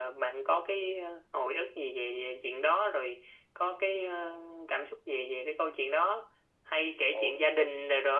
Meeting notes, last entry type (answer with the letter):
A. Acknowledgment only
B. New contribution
A